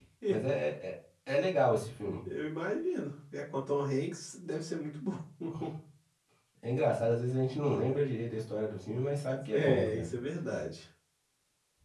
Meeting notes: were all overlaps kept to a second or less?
Yes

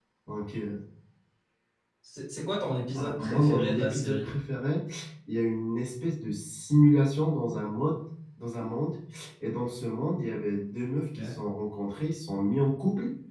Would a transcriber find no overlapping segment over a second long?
No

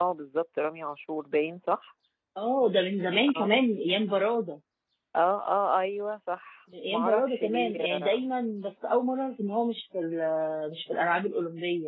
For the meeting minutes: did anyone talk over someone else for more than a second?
Yes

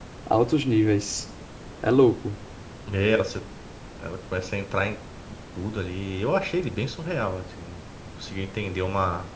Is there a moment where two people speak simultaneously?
No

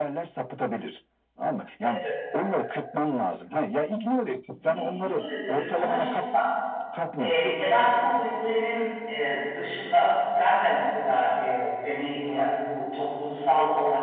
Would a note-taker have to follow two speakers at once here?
Yes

